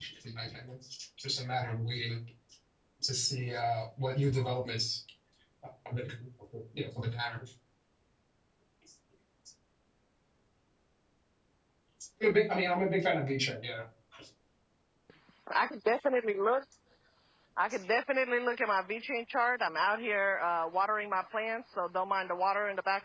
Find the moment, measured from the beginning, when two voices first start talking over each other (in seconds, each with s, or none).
none